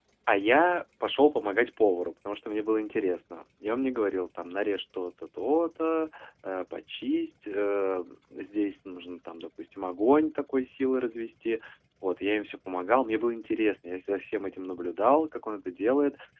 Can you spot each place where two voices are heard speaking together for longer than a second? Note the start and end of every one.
none

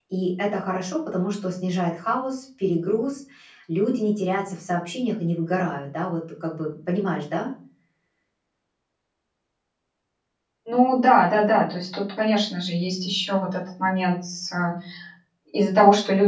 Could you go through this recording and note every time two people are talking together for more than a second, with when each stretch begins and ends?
none

